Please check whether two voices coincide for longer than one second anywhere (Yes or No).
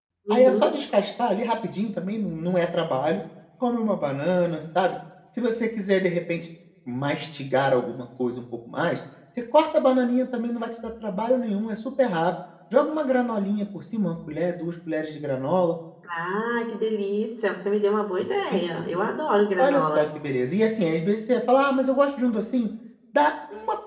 No